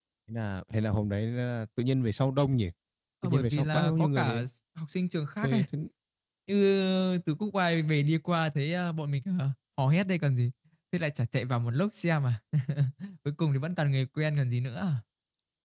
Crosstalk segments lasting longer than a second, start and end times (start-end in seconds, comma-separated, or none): 3.2-4.4